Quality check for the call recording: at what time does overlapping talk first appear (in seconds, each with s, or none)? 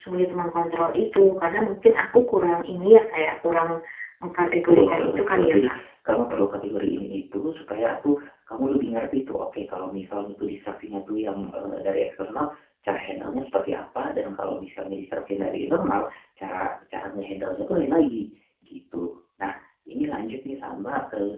4.4 s